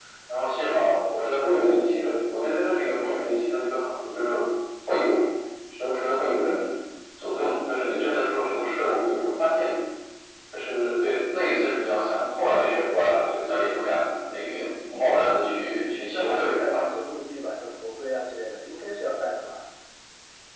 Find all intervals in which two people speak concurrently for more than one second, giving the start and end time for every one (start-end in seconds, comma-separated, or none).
15.2-16.8